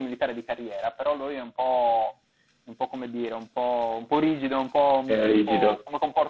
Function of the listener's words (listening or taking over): listening